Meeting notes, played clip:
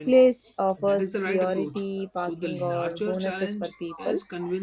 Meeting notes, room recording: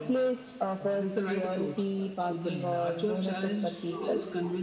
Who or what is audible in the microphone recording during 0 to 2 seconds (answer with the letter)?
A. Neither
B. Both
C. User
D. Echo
D